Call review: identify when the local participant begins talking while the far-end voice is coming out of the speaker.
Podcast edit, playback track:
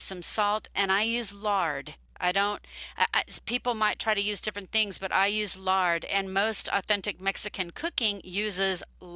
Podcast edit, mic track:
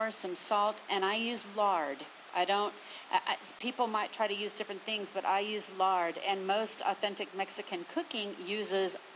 none

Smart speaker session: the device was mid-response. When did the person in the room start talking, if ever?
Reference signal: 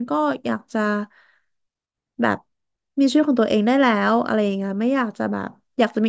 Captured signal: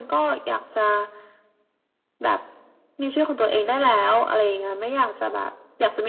none

